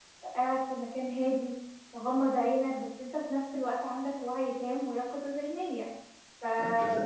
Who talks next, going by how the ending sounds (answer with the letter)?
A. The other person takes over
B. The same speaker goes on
B